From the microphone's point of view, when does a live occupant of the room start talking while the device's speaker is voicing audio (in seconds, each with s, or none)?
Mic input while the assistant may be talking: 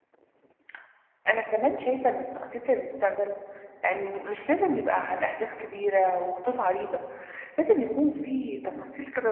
none